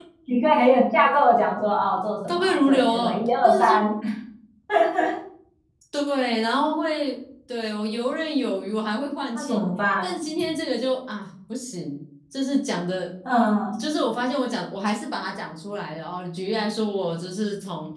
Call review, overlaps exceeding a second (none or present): present